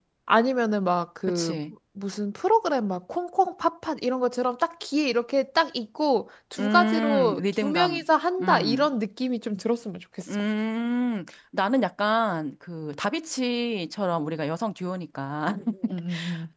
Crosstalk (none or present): present